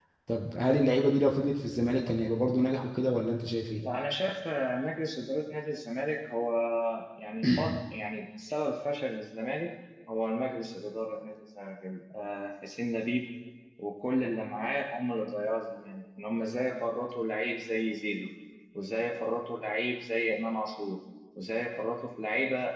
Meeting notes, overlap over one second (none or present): none